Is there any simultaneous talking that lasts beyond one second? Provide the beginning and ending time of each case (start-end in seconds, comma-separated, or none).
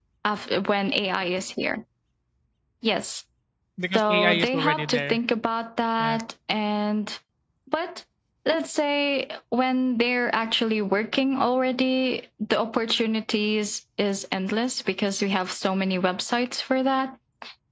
3.9-5.2